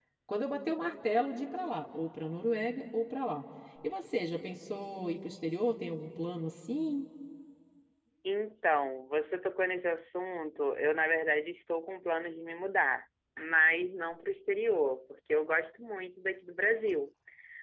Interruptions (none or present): none